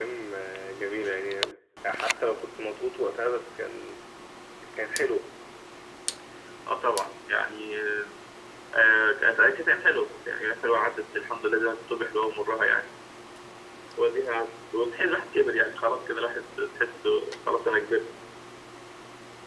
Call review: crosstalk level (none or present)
none